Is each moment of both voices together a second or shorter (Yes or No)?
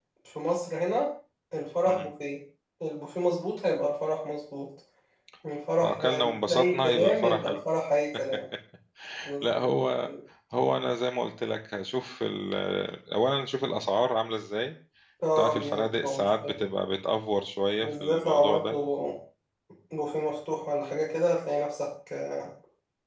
No